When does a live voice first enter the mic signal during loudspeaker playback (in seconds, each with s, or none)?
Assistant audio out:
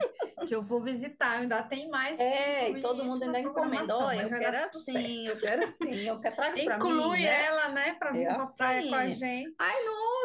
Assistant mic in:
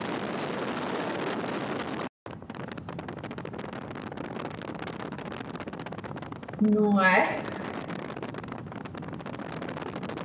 6.6 s